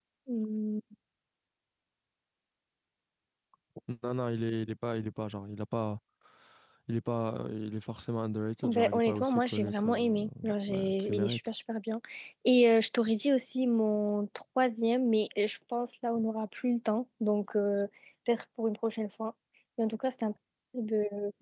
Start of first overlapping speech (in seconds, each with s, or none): 8.6 s